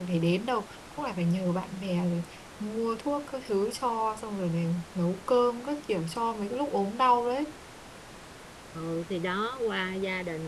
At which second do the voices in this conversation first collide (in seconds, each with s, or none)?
none